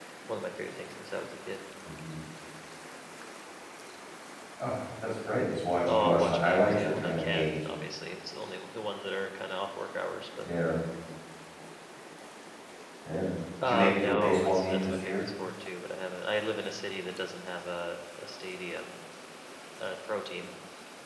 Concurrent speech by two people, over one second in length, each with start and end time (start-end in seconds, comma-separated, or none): 5.9-7.6, 13.6-15.2